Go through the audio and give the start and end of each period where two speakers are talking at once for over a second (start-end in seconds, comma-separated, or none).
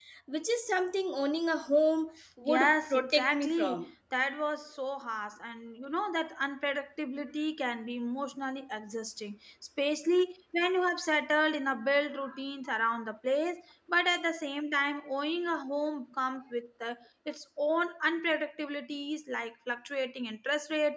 2.5-3.8